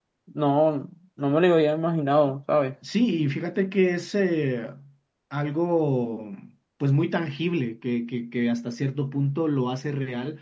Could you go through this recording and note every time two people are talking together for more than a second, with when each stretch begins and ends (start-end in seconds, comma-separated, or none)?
none